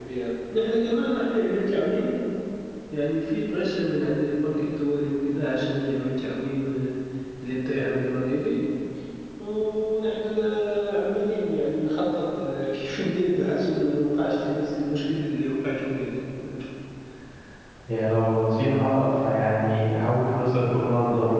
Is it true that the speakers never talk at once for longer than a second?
Yes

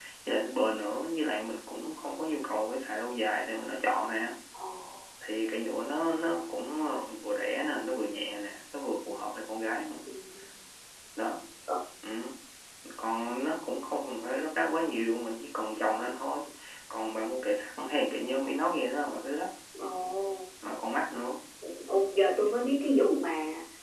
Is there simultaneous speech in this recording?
No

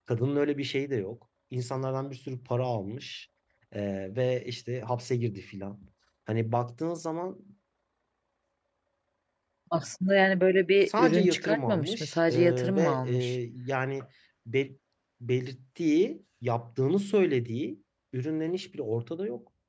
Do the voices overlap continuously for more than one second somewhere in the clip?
Yes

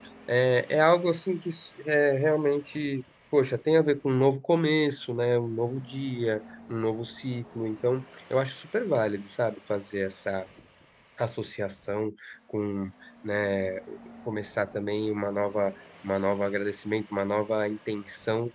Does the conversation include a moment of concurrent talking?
No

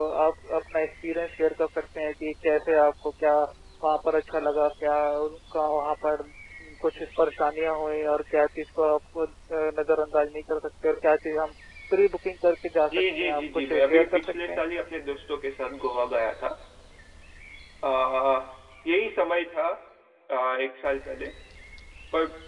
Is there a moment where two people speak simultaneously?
Yes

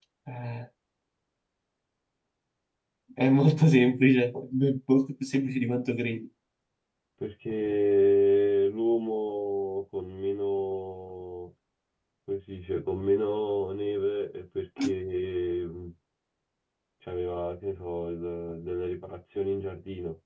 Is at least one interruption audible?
No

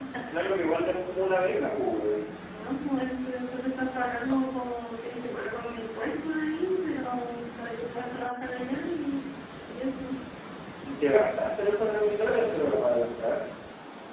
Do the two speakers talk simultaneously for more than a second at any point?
No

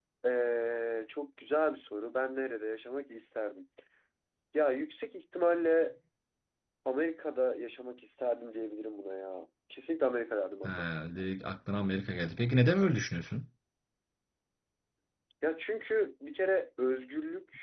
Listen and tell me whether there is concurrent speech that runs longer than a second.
No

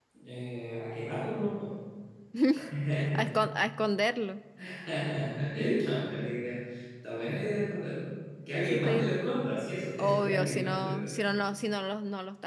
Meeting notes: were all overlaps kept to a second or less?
No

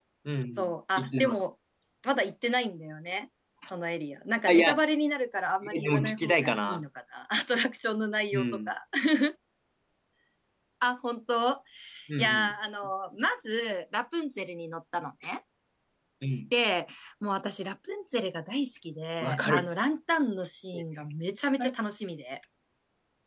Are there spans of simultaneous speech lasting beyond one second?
Yes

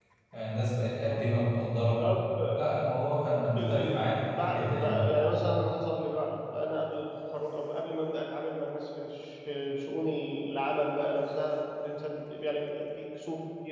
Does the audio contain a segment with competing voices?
Yes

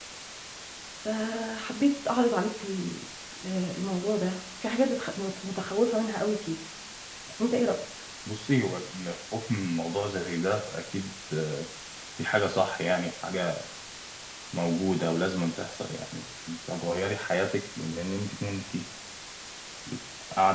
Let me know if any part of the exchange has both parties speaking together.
No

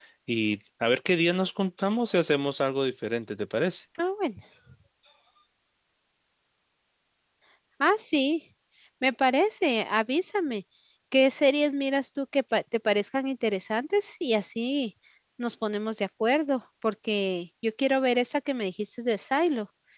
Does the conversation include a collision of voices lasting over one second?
No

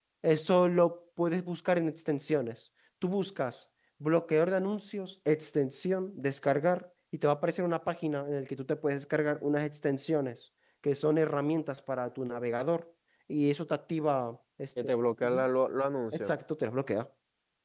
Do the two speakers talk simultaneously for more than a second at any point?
No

